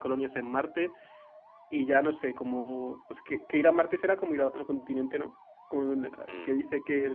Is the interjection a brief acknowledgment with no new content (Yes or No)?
Yes